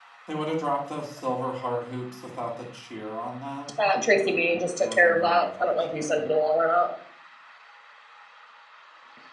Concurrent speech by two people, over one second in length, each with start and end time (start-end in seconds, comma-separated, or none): 4.8-6.2